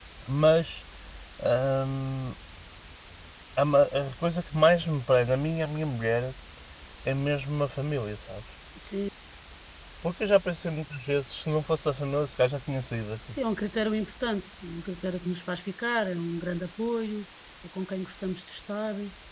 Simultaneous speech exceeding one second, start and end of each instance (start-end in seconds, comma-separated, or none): none